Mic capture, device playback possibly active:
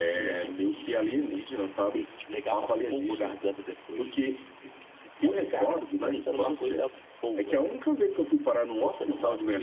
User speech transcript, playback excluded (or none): none